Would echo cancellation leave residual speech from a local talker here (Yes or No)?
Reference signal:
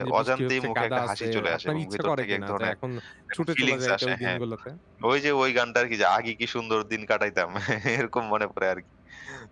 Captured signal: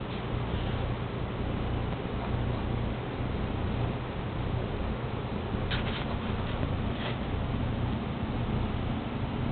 No